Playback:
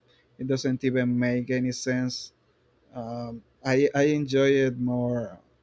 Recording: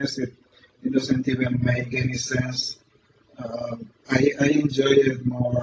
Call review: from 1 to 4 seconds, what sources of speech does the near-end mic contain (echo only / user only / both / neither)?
echo only